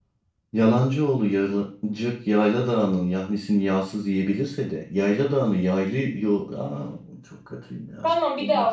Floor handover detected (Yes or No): Yes